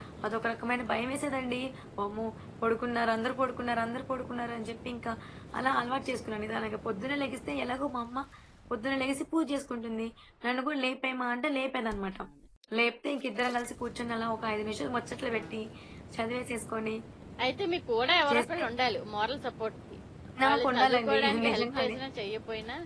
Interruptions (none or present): present